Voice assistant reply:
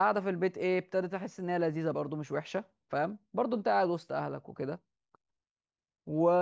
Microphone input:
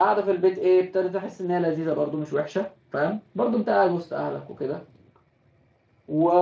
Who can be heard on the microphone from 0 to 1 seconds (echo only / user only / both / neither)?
echo only